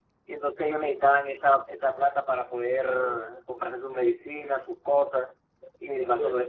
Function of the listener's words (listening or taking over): listening